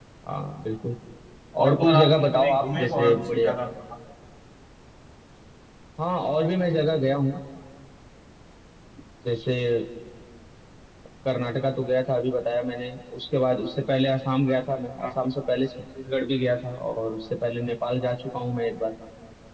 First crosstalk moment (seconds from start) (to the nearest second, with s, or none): 2 s